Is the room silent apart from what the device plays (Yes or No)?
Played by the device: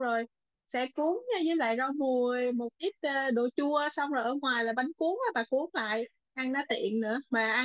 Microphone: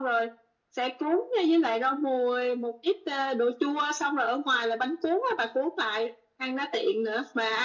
Yes